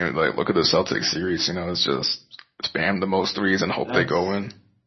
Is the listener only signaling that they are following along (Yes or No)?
No